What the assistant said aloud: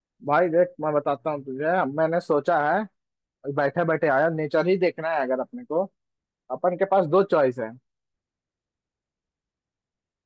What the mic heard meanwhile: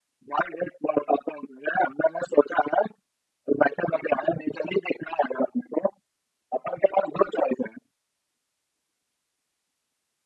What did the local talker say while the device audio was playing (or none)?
none